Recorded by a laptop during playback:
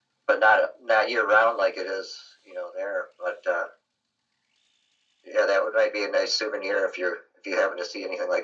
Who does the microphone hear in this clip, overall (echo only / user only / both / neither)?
echo only